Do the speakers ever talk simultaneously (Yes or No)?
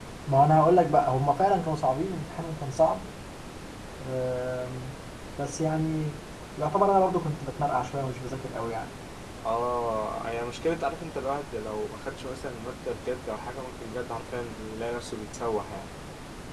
No